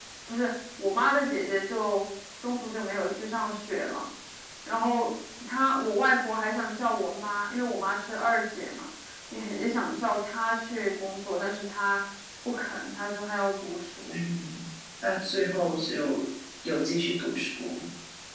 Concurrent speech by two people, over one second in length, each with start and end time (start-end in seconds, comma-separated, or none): none